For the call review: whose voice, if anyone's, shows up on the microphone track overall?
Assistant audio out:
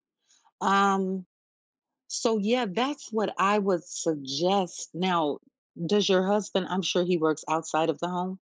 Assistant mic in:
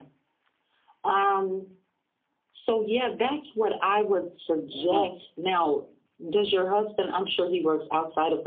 both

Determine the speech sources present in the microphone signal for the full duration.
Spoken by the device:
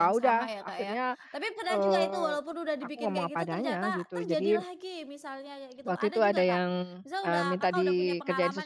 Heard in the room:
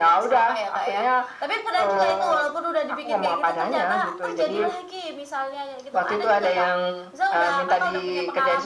echo only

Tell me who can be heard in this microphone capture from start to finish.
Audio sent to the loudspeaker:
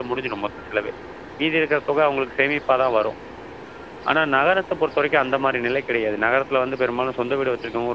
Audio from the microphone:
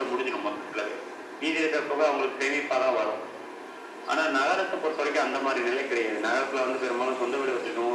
echo only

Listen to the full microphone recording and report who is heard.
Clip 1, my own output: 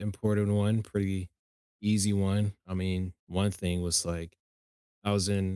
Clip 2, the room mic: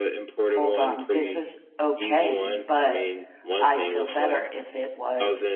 both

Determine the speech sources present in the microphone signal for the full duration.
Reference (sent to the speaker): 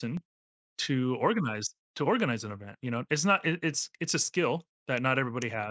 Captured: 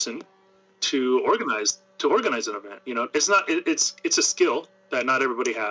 echo only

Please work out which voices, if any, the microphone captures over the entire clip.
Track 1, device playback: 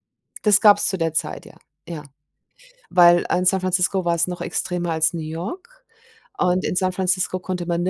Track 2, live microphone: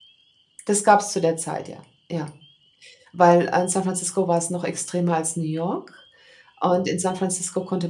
echo only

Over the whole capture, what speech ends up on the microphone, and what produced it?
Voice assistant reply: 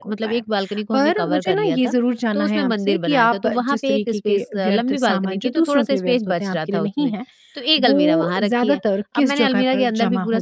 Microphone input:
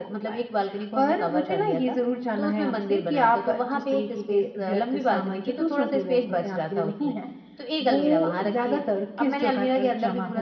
echo only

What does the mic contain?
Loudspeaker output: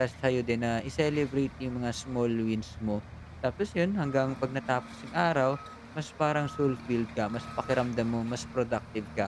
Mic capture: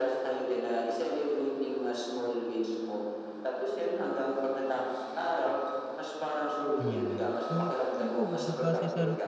both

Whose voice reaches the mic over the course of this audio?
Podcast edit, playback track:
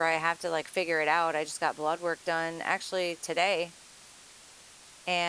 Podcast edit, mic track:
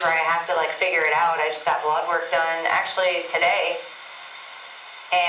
echo only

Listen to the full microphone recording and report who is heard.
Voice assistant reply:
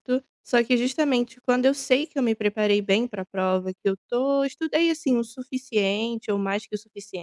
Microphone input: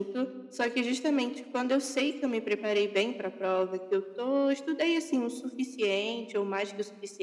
echo only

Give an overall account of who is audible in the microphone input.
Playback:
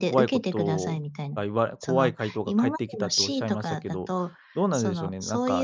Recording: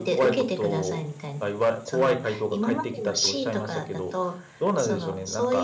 echo only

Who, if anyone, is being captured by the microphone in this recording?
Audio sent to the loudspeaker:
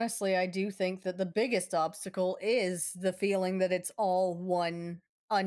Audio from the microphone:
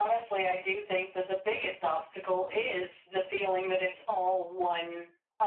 echo only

